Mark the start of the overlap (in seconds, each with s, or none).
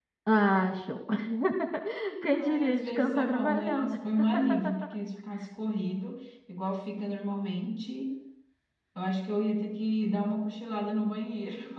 2.3 s